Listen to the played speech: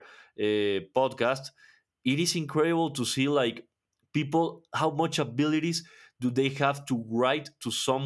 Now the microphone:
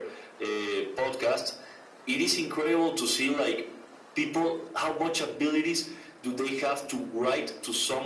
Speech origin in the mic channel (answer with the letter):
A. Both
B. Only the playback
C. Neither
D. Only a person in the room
B